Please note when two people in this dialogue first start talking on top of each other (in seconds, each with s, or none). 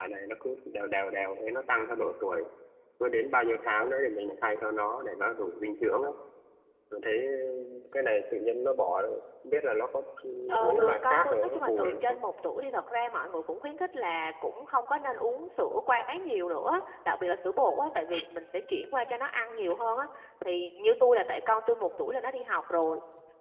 10.6 s